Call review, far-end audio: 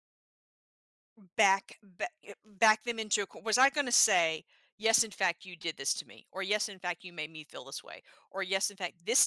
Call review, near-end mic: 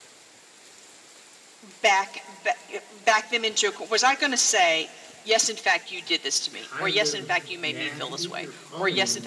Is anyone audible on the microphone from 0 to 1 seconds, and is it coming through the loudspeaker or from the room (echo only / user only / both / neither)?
neither